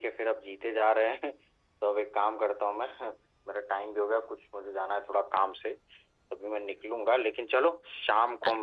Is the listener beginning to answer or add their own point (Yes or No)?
No